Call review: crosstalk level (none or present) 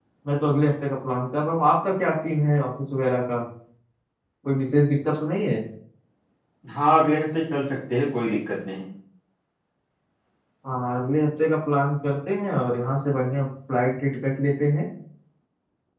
none